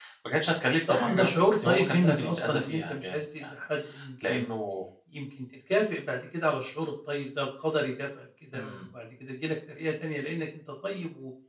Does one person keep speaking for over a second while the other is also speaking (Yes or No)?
Yes